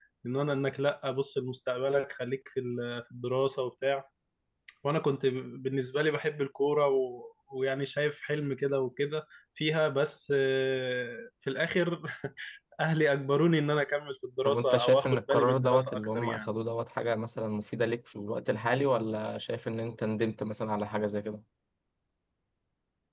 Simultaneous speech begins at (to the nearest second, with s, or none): 14 s